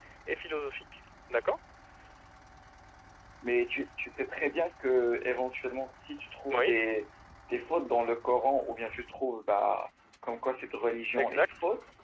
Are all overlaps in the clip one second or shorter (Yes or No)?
Yes